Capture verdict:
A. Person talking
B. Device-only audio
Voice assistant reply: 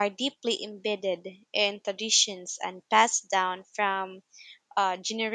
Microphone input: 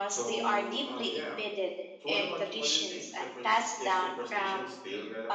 A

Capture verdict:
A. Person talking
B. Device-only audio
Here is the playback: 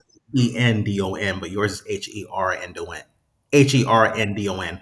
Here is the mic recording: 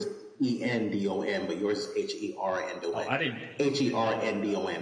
A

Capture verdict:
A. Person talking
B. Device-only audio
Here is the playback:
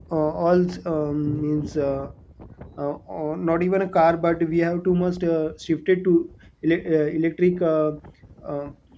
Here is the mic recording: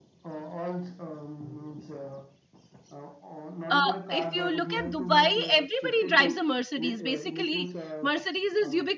A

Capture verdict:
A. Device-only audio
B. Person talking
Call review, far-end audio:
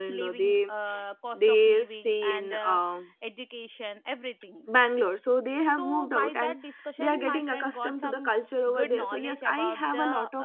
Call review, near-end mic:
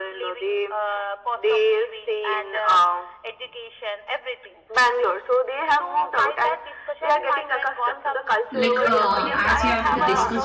B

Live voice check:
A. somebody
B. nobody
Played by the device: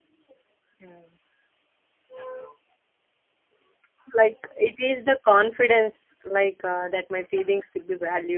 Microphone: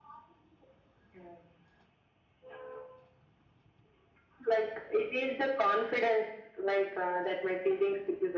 B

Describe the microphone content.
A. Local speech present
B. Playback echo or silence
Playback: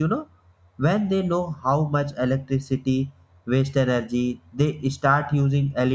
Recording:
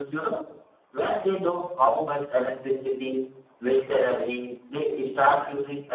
A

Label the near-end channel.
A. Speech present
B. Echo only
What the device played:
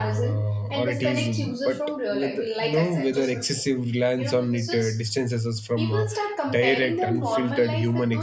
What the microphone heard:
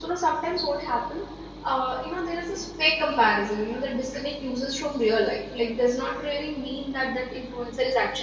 A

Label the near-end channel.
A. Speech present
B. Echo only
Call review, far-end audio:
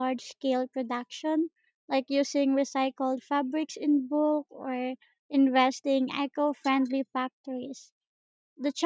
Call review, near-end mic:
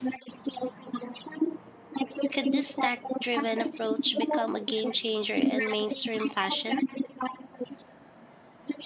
A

